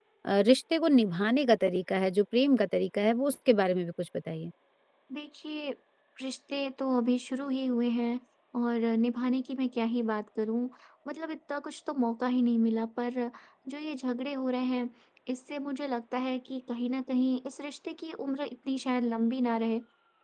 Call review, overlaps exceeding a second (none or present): none